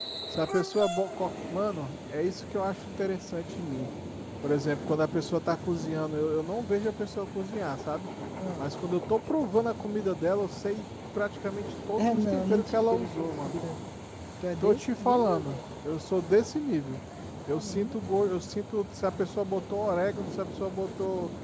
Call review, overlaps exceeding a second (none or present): present